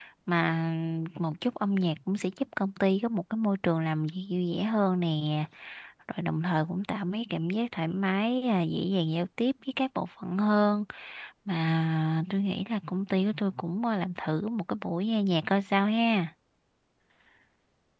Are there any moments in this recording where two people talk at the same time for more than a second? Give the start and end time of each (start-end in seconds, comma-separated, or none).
none